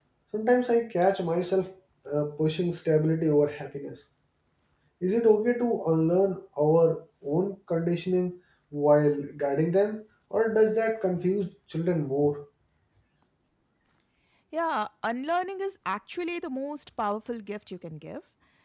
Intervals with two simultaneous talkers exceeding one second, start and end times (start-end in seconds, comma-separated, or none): none